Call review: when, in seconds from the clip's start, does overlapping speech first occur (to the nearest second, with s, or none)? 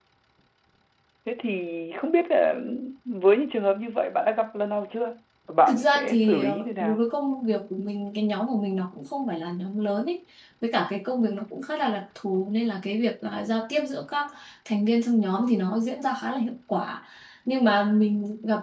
6 s